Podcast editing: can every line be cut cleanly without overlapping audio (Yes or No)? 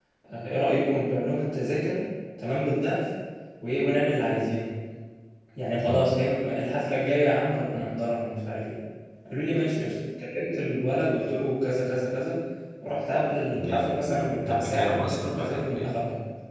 No